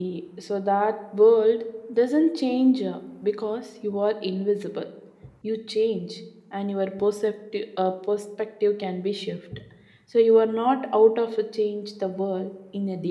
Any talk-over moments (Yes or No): No